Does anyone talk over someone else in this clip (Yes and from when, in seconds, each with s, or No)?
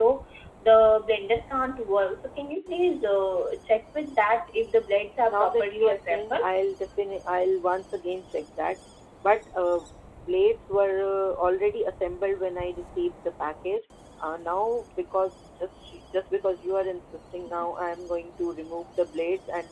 Yes, from 5.3 s